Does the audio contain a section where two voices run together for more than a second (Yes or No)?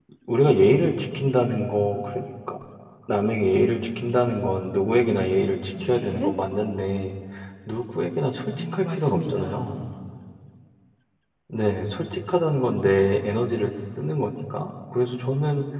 Yes